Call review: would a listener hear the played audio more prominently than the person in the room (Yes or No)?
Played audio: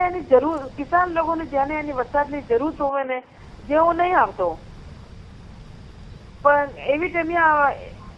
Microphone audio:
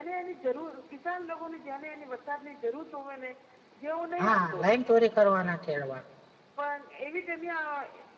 No